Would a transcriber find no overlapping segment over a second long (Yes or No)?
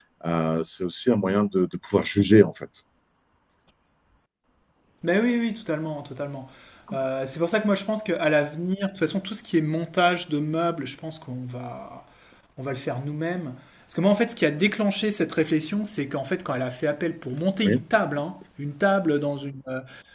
Yes